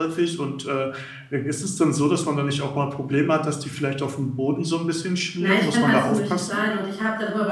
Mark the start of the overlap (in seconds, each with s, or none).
5.4 s